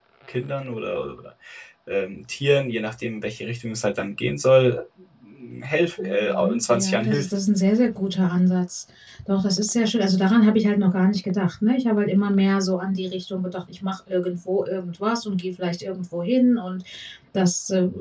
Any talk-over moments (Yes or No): Yes